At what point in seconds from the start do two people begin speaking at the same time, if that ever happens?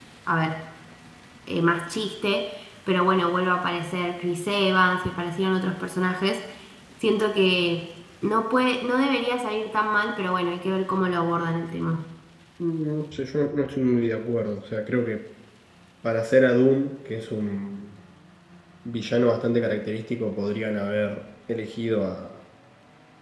none

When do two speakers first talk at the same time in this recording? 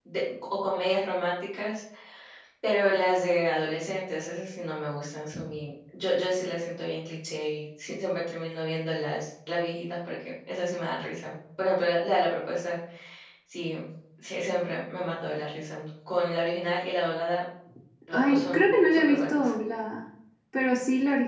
18 s

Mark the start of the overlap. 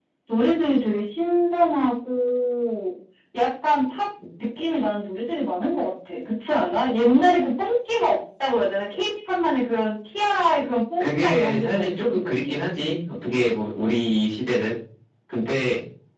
11 s

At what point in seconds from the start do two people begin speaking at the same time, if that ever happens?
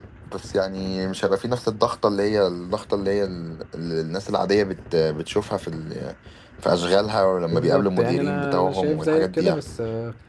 8 s

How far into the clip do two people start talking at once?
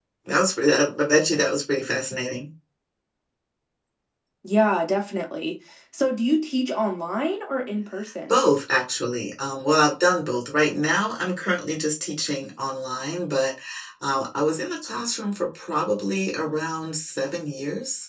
none

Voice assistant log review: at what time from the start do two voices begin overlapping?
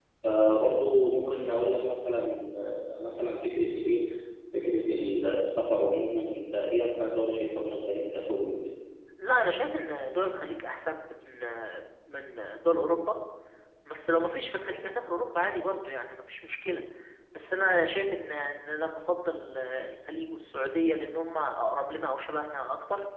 none

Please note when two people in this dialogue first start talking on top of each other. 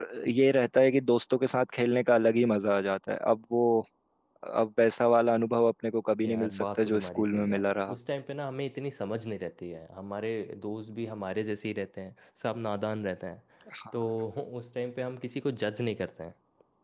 6 s

